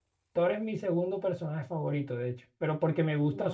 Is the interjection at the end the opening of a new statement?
No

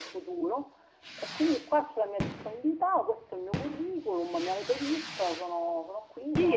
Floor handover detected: Yes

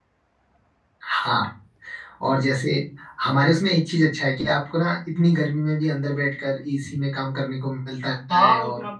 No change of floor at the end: No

